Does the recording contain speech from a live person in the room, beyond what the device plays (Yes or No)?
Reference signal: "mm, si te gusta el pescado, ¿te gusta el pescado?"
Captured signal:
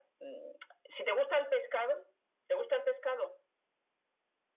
No